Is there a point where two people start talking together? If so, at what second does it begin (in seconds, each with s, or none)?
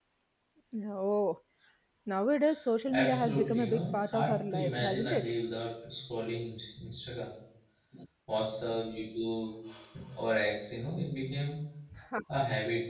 2.9 s